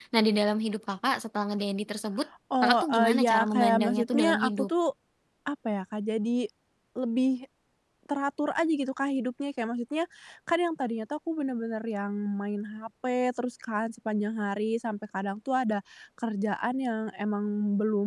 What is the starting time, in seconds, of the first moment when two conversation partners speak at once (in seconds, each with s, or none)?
2.5 s